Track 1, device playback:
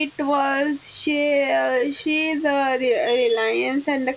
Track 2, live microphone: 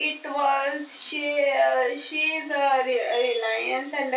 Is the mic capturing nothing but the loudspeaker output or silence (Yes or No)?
Yes